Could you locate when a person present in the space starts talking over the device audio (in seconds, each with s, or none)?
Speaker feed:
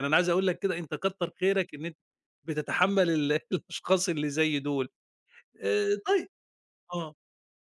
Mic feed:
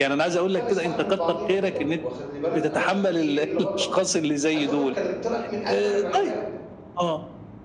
0.5 s